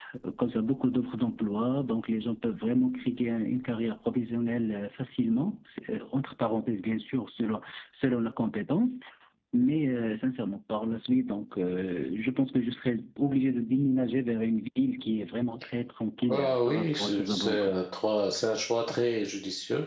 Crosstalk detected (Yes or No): Yes